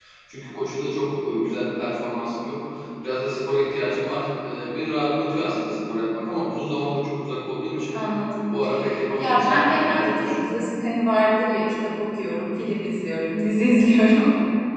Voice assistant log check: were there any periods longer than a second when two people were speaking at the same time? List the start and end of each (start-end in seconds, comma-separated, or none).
9.2-10.5